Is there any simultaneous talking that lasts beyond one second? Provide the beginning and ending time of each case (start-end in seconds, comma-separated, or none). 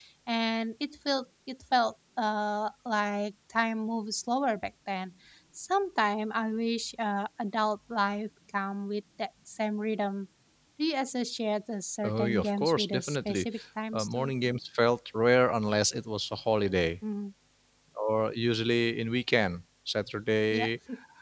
12.0-13.4